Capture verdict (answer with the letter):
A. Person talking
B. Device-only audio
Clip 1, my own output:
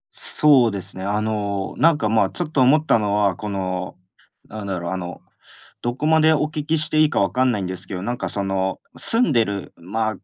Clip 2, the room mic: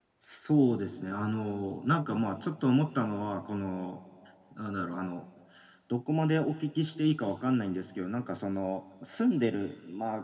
B